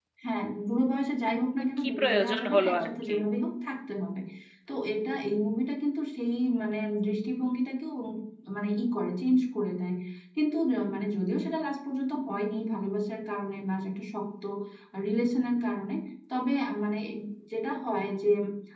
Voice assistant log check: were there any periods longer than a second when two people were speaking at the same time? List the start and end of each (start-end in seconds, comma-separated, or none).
1.8-3.1